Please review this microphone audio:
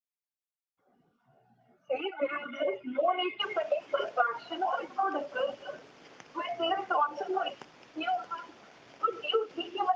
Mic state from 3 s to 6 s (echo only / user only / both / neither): echo only